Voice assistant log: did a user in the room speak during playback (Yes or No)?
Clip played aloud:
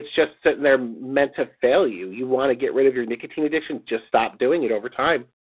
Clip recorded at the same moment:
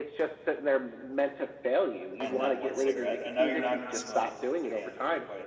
Yes